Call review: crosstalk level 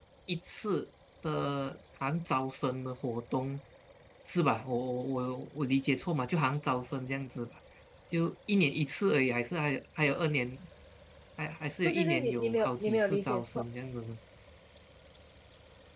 present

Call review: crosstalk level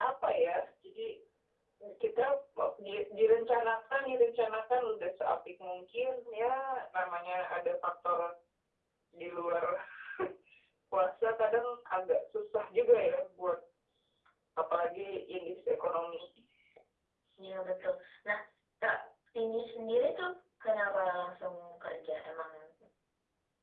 none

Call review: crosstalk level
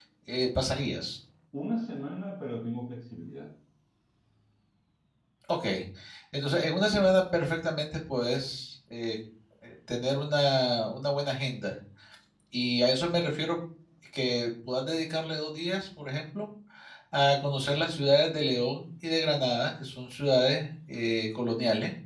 none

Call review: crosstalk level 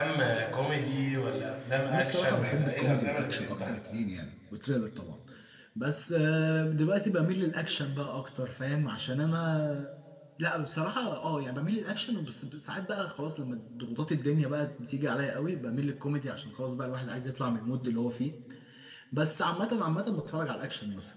present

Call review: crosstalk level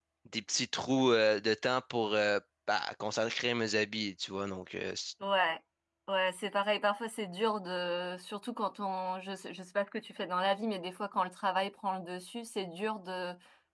none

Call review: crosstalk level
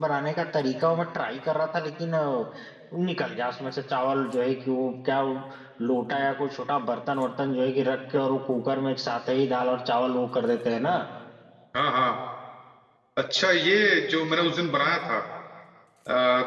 none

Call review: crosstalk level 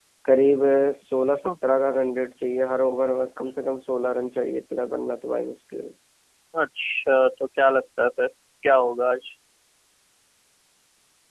none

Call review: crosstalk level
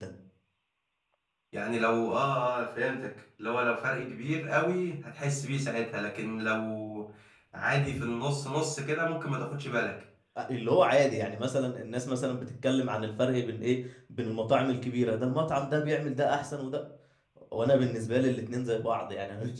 none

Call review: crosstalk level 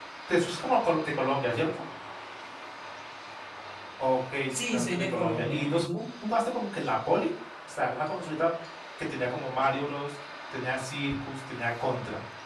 present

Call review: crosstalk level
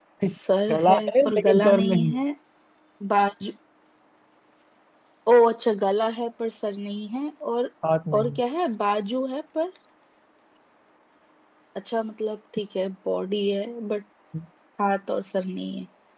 present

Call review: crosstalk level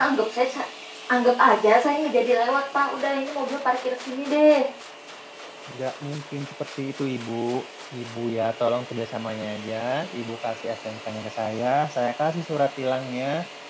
none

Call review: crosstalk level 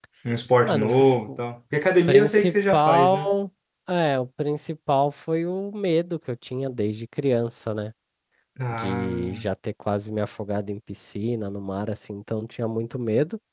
present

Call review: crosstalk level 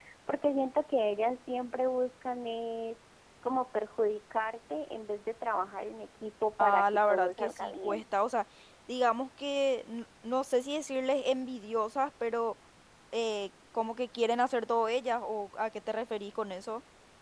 present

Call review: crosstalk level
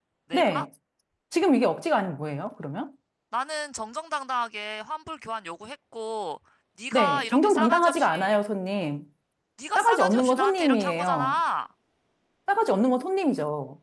present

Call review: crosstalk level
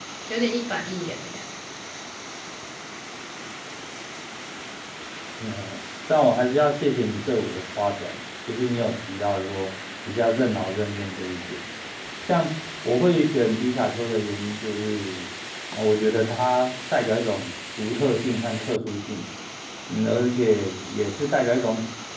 none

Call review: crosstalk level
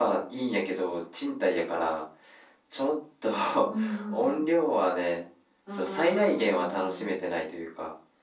present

